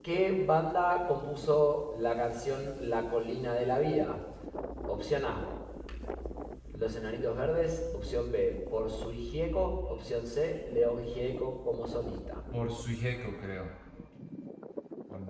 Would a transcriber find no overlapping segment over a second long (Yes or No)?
Yes